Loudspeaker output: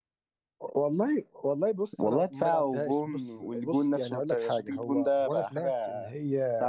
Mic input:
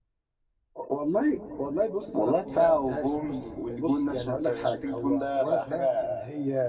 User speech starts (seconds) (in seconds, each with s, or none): none